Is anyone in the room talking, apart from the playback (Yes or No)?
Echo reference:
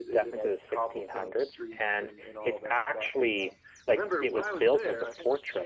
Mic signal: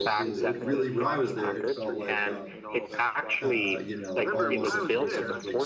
Yes